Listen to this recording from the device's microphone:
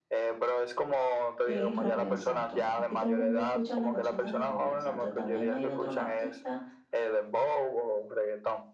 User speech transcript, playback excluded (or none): es Romeo Santos. Aquí todo el mundo escucha las bachatas de Romeo Santos. También hay otros artistas,